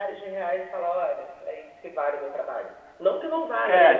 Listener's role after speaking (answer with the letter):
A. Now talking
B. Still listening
A